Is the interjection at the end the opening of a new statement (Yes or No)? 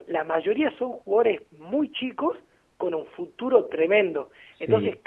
No